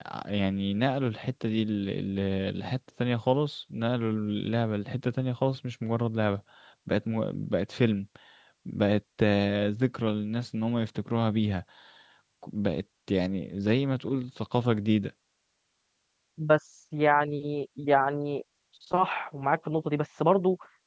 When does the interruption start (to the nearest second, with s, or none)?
none